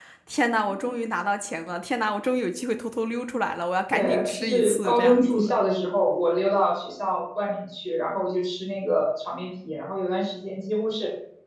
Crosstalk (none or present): present